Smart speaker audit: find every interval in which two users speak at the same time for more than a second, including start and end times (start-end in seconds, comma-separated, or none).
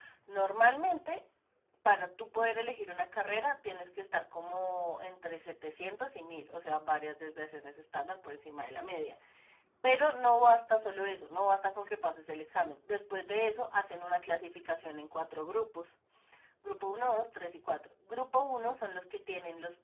none